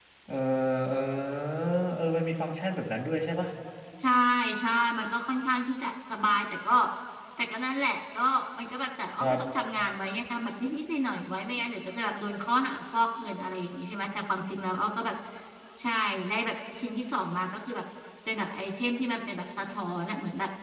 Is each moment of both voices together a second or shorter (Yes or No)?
Yes